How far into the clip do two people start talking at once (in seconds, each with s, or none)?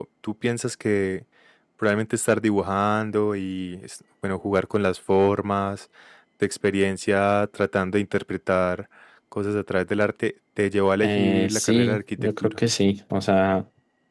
11.0 s